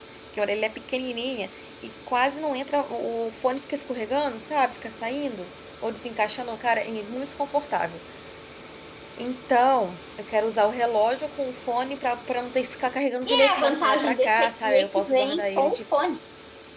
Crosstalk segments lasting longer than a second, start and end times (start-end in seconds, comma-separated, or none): 13.3-15.7